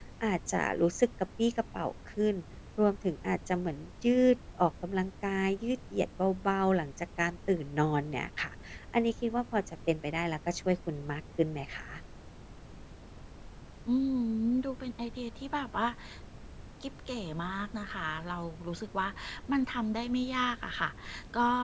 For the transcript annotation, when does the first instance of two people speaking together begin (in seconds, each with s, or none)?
none